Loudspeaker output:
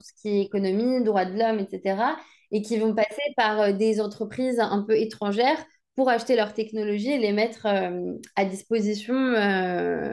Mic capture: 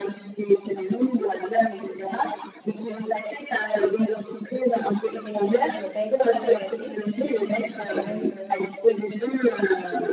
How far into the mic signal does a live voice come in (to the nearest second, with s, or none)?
5 s